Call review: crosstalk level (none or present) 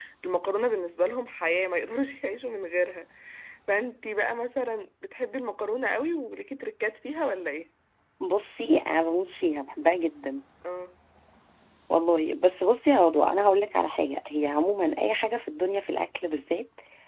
none